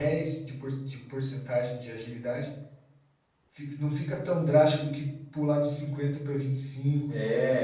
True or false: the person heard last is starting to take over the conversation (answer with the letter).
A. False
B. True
B